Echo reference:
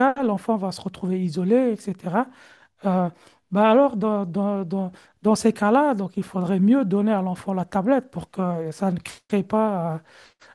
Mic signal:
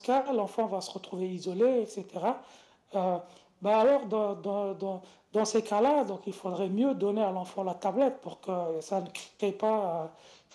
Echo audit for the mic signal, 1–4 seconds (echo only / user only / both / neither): echo only